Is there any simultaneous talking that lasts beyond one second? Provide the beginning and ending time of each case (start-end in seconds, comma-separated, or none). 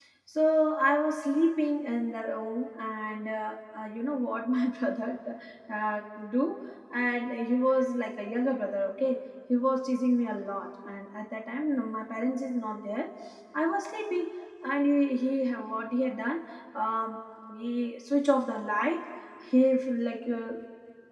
none